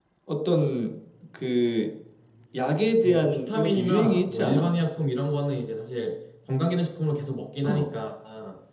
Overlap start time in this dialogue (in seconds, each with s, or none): 3.0 s